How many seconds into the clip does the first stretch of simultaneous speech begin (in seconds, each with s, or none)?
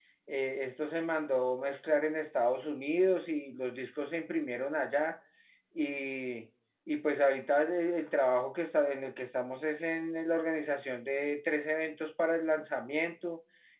none